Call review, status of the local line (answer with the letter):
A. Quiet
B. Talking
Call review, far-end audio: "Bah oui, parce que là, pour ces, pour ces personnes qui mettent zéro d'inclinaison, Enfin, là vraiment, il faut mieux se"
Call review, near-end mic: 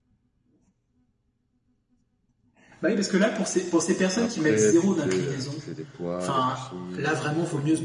B